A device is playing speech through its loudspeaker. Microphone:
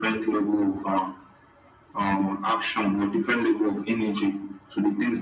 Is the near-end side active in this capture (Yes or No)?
No